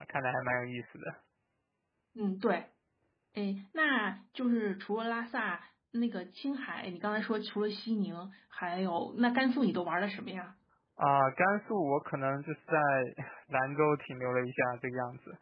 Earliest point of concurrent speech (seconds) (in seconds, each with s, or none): none